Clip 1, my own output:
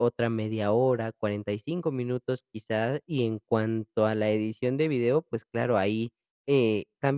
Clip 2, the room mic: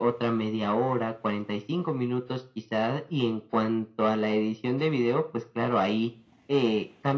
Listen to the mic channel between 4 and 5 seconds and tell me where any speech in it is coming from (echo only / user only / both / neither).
echo only